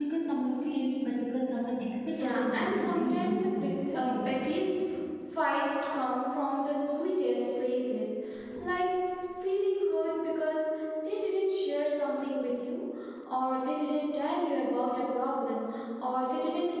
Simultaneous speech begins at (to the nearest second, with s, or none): 2 s